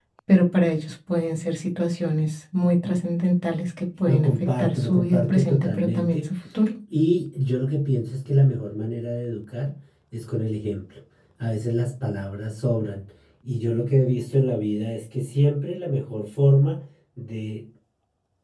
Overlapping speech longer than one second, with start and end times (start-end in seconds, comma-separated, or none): 4.0-6.2